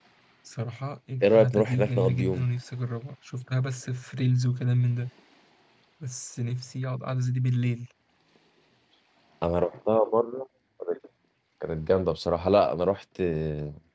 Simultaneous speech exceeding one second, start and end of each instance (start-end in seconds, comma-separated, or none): 1.2-2.5